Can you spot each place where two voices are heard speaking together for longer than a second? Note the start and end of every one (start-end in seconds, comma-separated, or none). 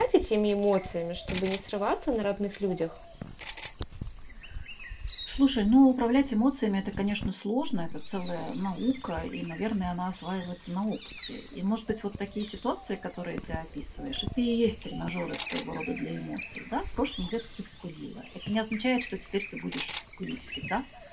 none